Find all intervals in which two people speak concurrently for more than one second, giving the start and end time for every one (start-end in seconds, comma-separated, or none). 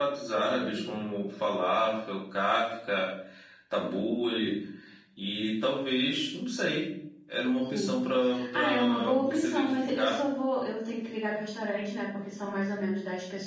8.5-10.2